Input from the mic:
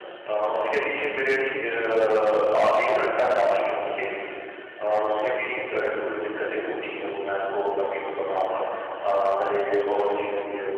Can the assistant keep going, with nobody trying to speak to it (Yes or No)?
Yes